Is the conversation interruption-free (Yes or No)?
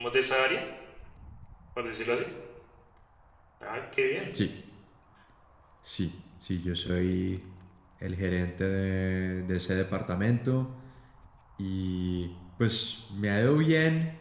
Yes